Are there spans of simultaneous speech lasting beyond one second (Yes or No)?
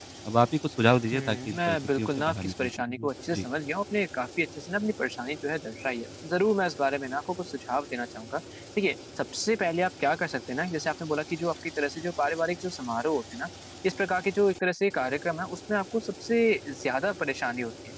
Yes